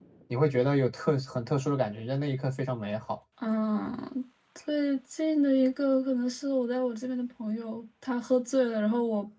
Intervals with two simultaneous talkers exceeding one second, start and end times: none

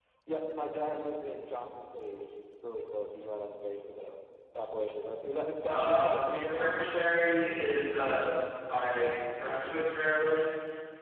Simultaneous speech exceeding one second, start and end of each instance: 5.7-7.2

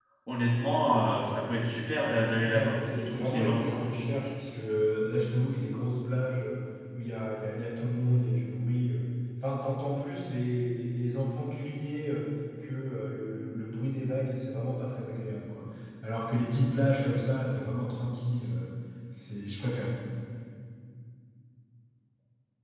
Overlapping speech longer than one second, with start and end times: 2.4-3.8

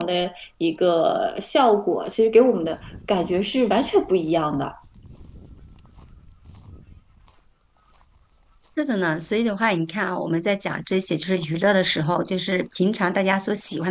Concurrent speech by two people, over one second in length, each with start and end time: none

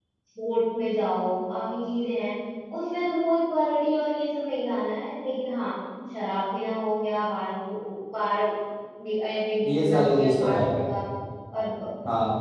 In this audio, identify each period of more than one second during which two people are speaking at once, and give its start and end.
9.7-10.9

